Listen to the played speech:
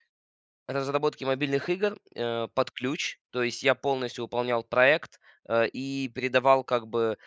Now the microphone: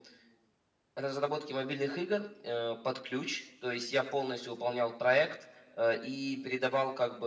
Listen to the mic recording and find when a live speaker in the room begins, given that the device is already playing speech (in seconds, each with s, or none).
none